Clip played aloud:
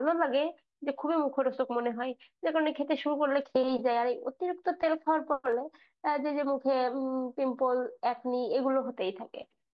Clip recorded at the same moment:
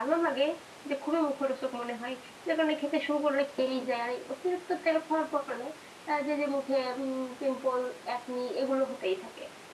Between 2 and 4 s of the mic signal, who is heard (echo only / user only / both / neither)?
echo only